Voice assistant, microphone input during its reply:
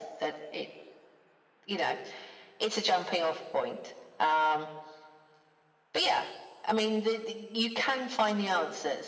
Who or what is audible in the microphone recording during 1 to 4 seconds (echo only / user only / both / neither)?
echo only